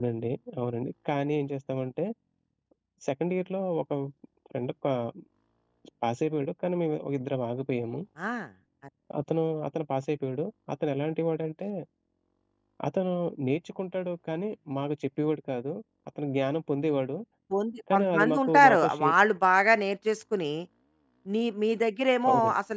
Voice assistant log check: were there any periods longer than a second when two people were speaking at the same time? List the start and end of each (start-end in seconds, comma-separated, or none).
17.9-19.1